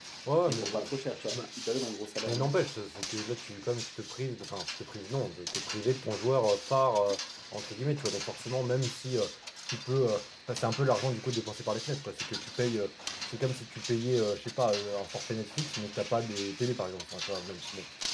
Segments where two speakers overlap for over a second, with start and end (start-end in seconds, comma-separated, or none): none